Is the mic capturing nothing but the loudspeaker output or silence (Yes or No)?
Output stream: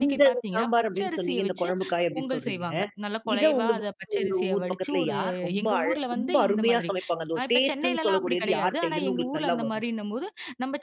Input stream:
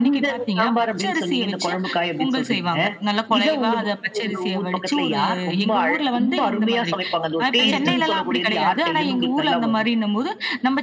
No